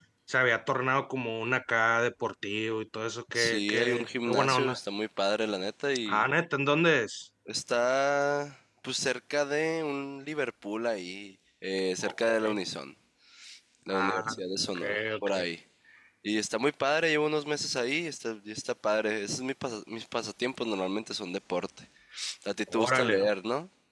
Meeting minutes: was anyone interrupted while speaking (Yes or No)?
Yes